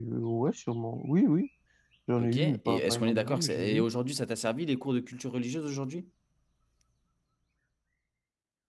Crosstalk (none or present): present